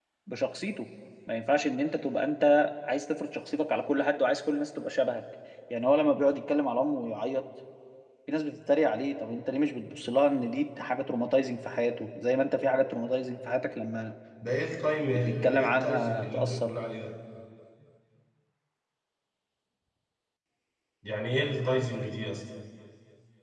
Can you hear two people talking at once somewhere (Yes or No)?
Yes